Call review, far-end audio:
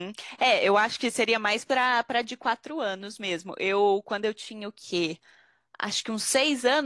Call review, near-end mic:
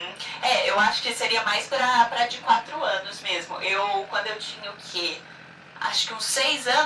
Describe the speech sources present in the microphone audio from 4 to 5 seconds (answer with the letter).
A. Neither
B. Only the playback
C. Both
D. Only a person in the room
B